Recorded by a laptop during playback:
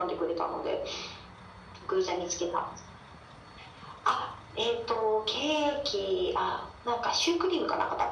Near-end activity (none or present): none